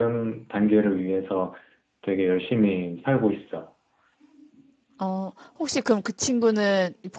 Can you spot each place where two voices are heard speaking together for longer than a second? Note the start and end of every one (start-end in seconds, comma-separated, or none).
none